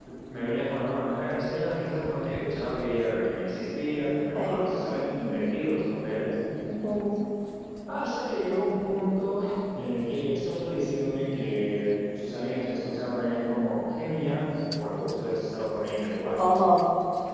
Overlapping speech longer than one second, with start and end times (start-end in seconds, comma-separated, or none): none